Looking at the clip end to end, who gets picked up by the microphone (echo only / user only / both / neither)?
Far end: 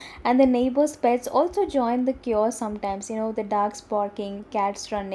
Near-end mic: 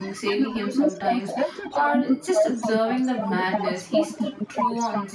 both